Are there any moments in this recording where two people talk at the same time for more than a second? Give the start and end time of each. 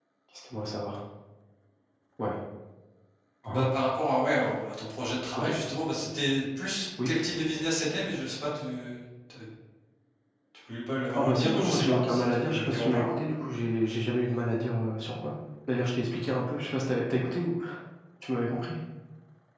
11.1-13.1

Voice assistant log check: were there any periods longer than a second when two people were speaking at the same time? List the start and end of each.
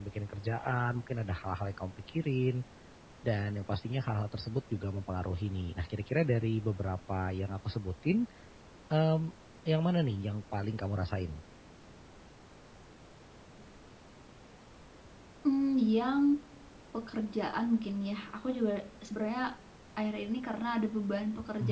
none

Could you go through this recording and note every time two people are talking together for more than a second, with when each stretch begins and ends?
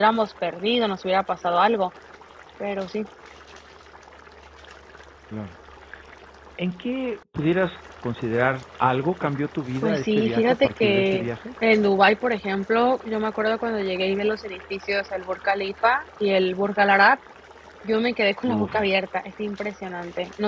9.8-11.3

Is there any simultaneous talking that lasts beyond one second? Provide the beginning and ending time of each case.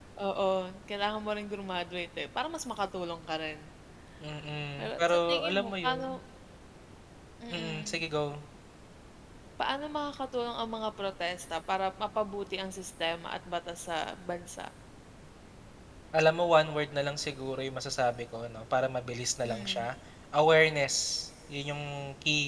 4.8-6.1

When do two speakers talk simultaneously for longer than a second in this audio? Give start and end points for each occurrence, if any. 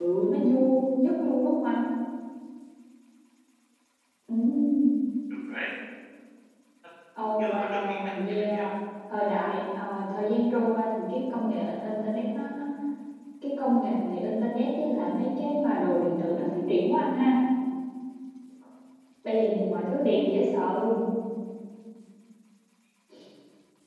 7.4-8.7

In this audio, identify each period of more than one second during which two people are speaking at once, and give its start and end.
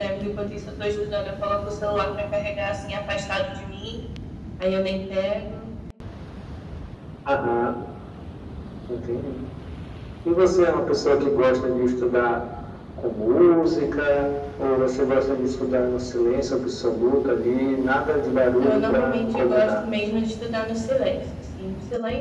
18.5-19.8

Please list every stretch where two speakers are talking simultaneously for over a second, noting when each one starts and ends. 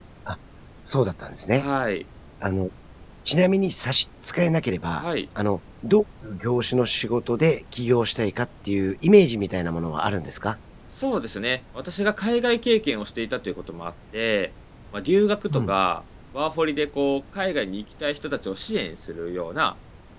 none

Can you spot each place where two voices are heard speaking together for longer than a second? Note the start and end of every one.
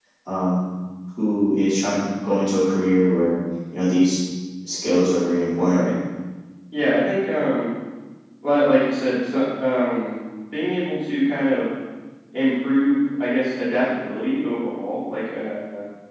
none

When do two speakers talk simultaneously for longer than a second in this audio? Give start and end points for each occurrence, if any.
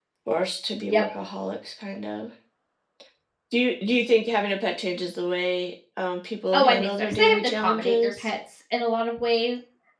6.5-8.3

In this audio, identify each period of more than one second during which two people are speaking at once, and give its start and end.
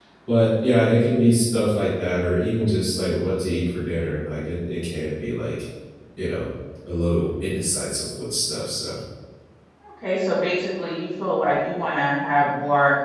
none

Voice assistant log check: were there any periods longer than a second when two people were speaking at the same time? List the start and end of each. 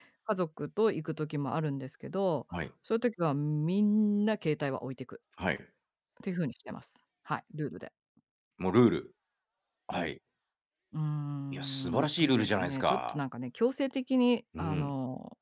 11.5-13.2

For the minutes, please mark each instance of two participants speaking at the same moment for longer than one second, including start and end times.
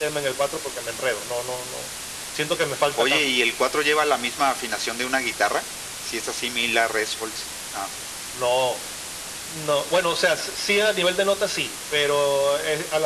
none

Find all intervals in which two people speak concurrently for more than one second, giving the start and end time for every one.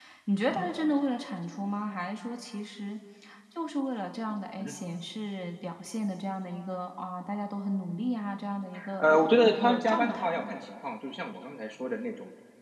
9.0-10.5

